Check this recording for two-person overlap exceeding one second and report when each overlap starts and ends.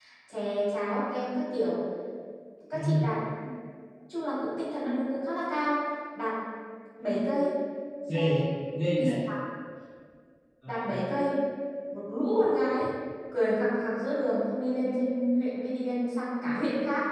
none

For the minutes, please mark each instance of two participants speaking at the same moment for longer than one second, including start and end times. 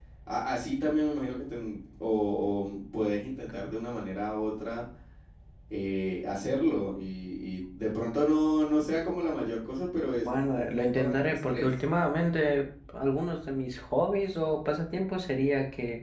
10.2-11.7

